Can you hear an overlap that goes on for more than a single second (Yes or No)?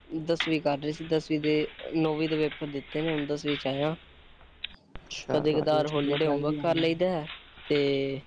Yes